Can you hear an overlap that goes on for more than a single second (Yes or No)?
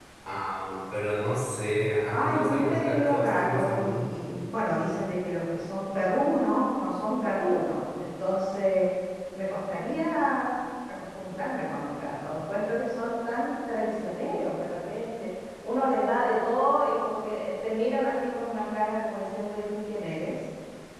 Yes